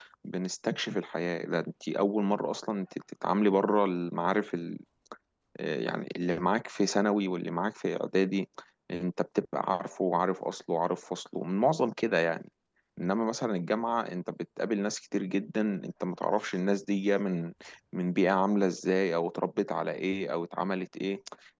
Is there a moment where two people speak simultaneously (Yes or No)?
No